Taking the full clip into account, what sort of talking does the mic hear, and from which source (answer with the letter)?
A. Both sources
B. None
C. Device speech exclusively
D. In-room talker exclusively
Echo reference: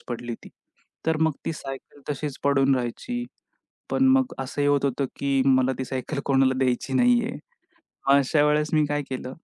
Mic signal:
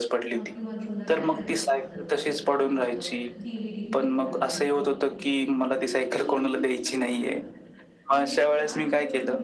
A